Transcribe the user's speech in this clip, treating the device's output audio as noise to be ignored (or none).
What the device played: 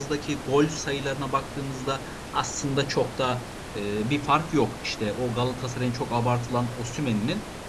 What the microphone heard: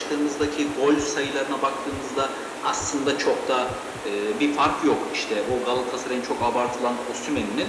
none